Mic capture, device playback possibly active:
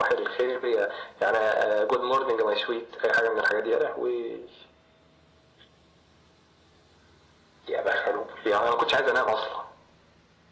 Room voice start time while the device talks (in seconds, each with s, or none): none